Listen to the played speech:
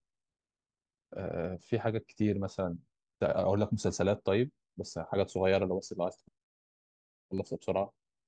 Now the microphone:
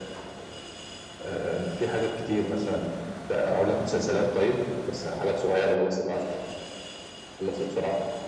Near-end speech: none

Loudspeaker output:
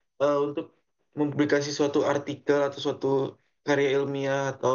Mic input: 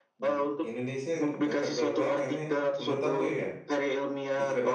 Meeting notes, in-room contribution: present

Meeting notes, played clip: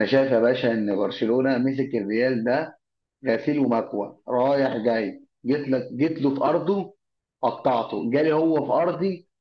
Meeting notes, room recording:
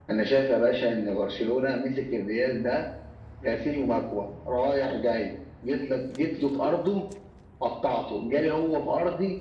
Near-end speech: none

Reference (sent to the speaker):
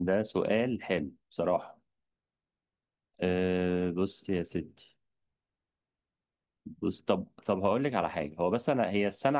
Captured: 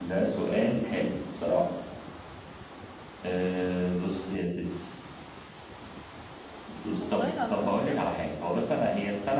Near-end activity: present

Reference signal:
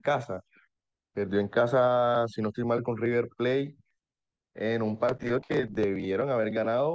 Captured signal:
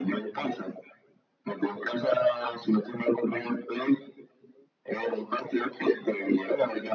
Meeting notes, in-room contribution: none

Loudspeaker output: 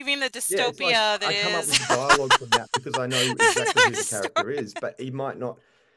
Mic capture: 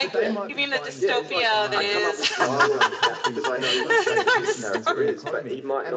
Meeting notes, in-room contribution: present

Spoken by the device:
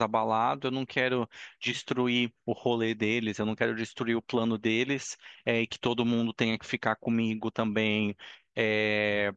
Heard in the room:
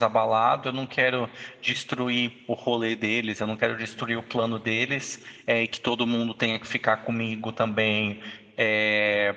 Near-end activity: none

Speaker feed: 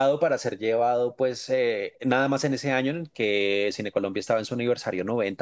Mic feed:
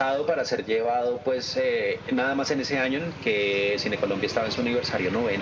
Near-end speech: none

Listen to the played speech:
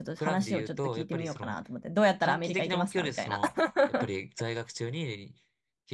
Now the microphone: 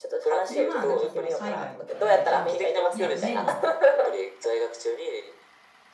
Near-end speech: present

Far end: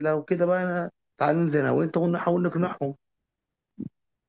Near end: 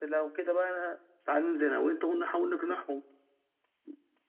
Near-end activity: none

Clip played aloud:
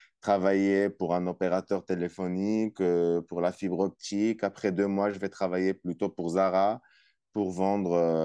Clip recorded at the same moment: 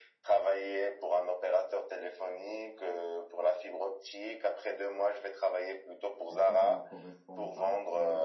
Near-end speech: present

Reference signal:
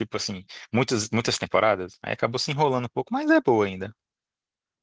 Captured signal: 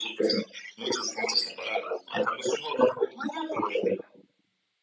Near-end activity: none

